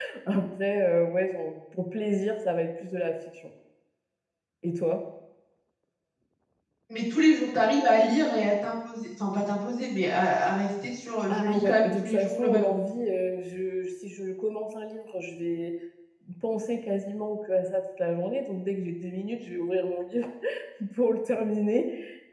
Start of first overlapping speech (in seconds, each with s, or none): 11.3 s